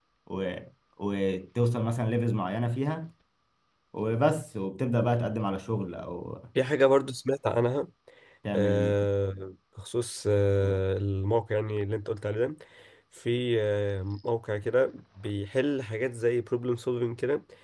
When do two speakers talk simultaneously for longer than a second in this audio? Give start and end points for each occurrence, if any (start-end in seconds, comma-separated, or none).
none